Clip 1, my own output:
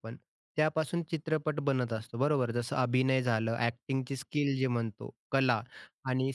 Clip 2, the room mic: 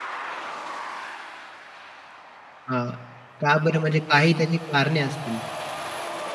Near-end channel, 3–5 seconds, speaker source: user only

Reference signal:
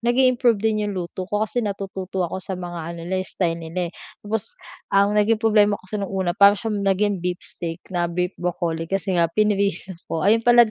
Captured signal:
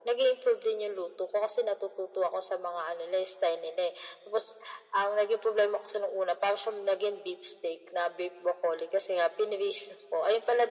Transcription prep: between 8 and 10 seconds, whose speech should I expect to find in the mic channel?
echo only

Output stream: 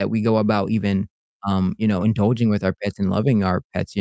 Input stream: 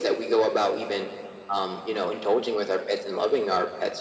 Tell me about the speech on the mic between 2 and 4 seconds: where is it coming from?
echo only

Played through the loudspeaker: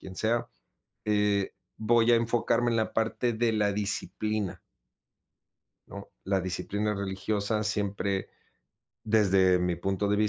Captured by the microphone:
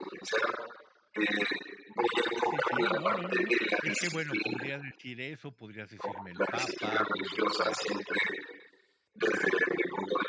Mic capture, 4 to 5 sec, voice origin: both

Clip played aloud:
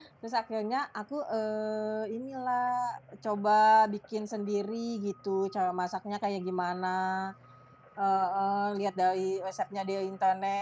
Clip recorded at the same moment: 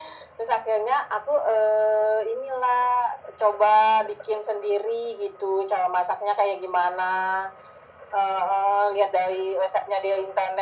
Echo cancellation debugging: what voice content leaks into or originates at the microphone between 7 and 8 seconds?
echo only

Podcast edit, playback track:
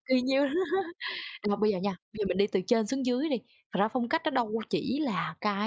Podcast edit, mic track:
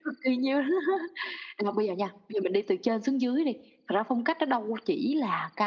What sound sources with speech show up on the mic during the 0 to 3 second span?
echo only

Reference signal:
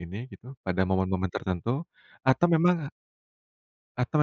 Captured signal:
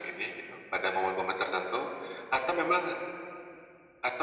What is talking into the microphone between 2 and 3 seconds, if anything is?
echo only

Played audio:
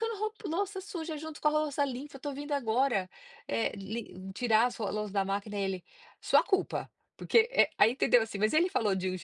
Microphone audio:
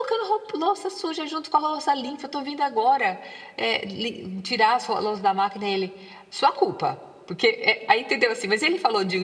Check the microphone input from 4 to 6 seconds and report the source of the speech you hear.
echo only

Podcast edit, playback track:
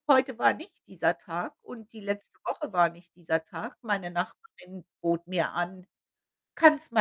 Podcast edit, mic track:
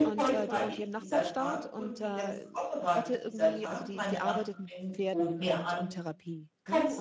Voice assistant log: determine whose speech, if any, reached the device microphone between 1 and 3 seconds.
both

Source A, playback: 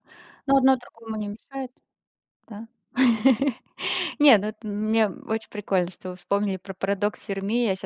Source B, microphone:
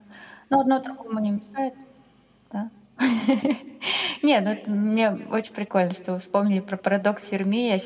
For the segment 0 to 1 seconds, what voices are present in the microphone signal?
echo only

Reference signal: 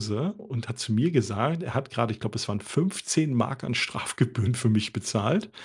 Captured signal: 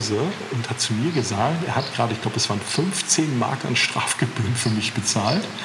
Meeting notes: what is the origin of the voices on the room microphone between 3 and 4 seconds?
echo only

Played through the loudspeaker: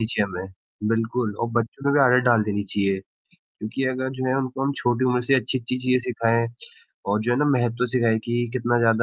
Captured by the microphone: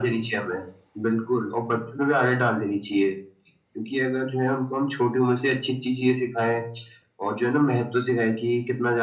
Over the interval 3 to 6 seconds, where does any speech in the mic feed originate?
echo only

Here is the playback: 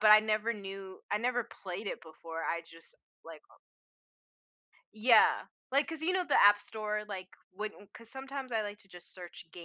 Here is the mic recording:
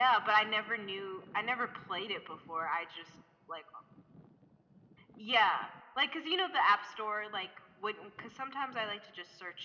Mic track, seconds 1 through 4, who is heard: echo only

